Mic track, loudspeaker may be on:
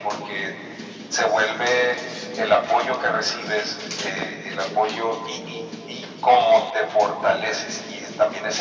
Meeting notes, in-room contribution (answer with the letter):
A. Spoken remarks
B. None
B